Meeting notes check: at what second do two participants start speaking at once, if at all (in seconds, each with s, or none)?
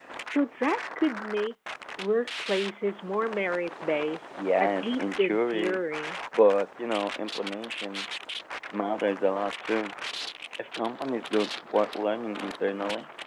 4.6 s